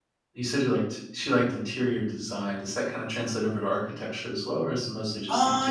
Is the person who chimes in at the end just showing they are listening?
No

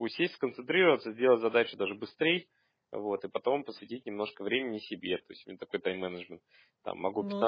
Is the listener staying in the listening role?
Yes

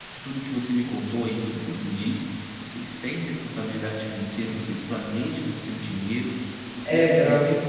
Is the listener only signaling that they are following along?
No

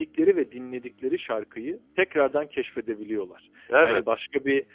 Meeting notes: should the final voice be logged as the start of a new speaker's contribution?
No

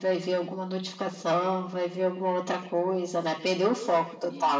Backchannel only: No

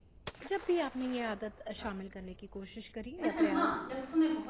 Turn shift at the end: Yes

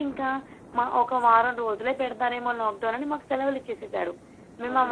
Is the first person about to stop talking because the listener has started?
No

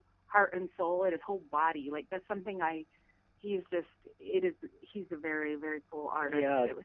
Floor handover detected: Yes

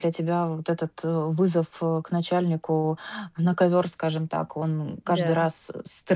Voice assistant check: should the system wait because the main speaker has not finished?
Yes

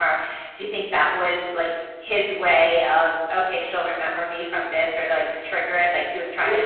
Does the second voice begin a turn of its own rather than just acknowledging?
Yes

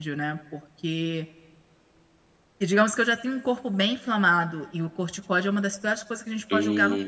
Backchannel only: No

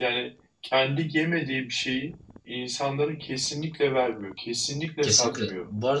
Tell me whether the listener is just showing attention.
No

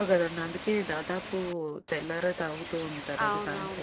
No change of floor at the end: No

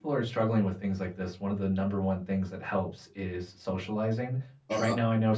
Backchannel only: Yes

